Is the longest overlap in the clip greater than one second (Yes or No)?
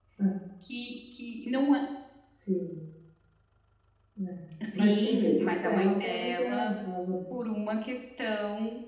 Yes